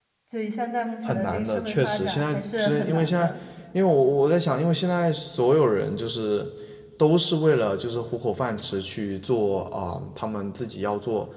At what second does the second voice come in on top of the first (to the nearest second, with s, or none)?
1 s